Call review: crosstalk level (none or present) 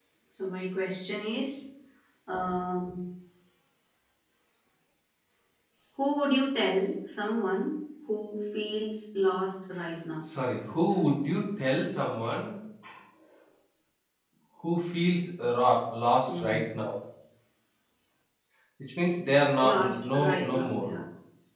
present